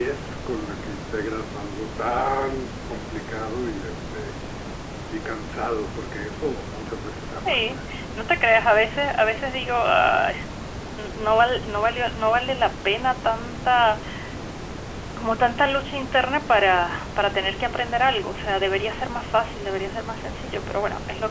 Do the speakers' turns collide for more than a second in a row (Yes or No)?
No